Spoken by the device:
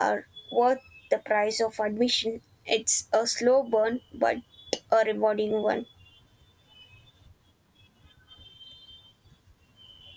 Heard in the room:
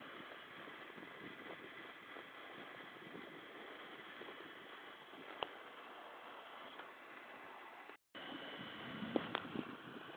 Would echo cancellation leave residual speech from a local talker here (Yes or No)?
No